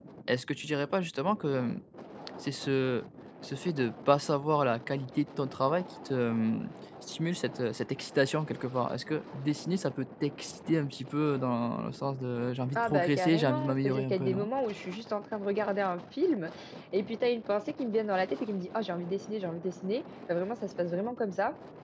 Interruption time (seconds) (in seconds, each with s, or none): 12.8 s